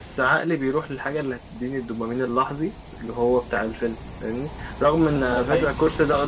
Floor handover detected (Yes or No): No